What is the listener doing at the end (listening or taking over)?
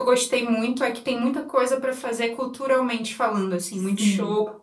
taking over